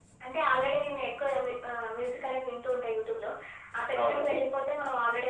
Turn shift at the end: No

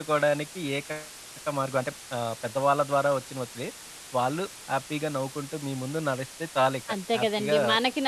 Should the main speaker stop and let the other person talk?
Yes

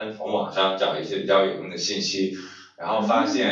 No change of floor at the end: Yes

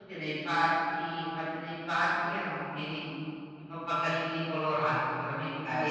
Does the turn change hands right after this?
Yes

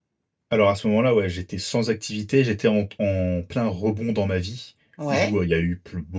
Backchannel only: Yes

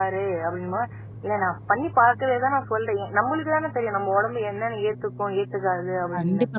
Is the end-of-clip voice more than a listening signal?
Yes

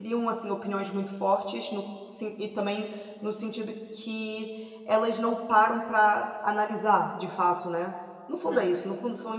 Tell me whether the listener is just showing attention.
Yes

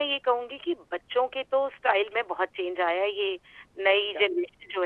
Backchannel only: Yes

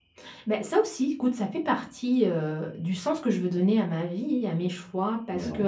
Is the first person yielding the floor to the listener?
No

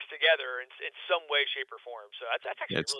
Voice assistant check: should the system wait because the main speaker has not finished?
Yes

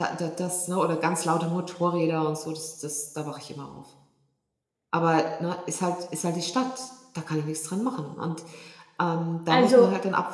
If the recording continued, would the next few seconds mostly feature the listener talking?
No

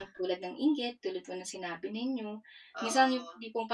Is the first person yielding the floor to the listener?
No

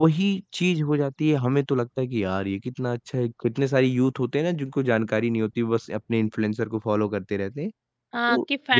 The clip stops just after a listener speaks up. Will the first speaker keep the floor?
No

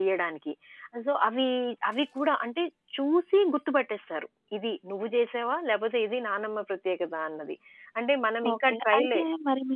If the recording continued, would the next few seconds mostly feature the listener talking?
Yes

